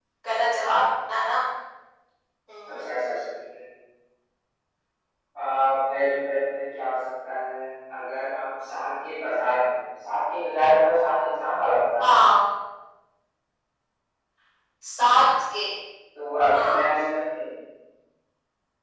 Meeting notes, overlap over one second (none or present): none